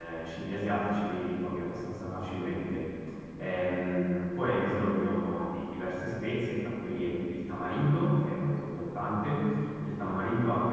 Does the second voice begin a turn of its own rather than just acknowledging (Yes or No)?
No